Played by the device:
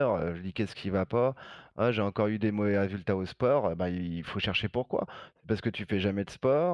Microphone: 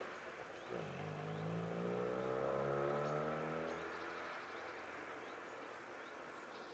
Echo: none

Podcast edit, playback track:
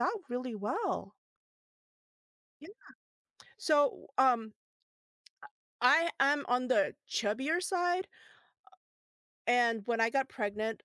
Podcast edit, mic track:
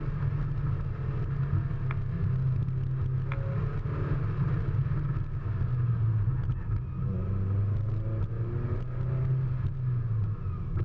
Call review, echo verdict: none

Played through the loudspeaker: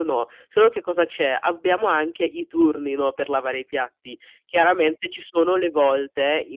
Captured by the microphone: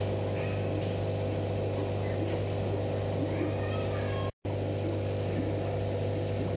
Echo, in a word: none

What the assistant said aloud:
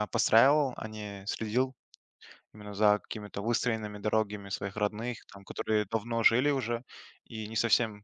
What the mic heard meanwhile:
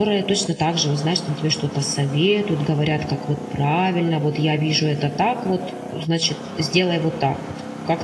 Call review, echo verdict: none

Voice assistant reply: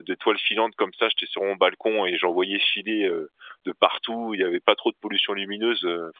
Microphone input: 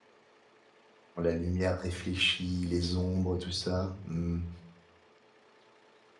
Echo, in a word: none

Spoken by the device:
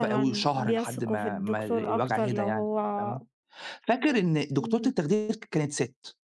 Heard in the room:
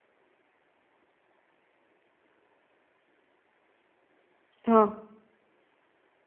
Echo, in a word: none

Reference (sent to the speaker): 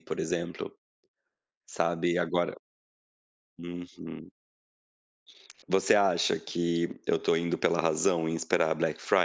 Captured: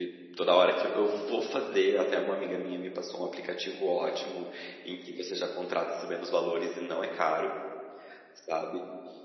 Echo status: none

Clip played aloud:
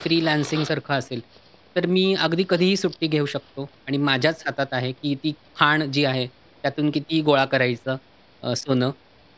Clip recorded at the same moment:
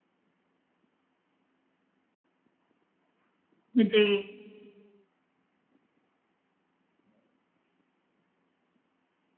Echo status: none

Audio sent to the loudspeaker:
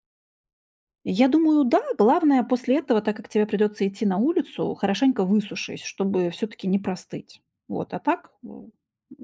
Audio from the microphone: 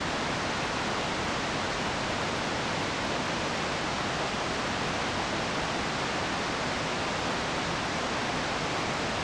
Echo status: none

